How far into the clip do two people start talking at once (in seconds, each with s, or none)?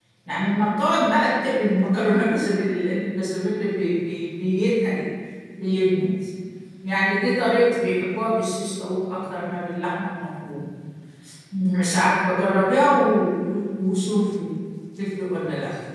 none